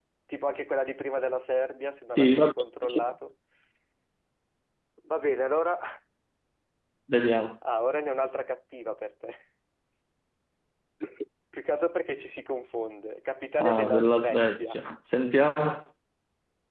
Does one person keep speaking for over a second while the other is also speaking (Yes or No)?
Yes